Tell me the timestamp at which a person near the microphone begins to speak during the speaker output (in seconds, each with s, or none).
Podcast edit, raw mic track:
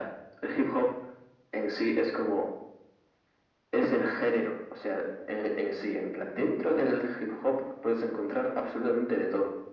none